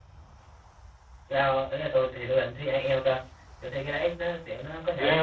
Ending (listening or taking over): listening